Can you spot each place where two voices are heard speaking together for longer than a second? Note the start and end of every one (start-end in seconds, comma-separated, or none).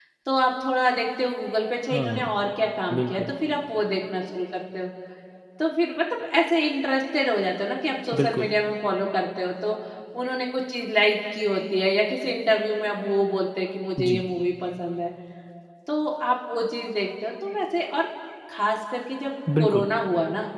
none